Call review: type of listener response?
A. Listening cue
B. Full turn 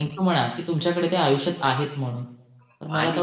B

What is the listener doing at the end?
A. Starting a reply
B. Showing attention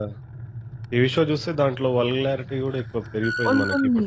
A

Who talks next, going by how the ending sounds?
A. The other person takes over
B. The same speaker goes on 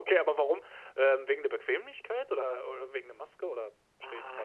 A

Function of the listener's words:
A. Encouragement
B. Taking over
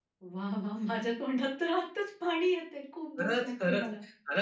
B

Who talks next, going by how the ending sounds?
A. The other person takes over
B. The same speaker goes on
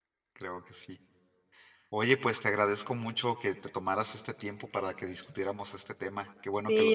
A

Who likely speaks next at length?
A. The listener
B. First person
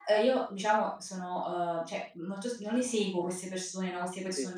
B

